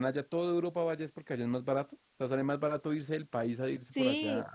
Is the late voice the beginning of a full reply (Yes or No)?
Yes